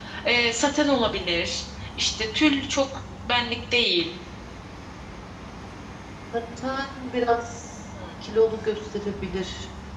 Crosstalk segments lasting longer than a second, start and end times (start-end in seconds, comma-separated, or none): none